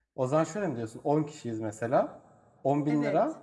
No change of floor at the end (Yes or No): Yes